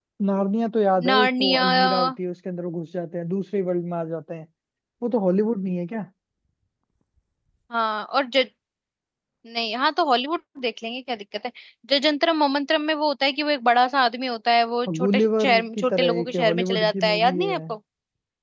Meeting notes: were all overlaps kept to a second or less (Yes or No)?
No